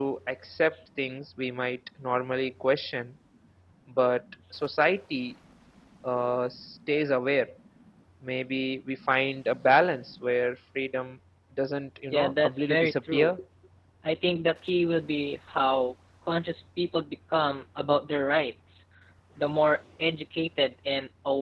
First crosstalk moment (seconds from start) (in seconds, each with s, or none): 12.1 s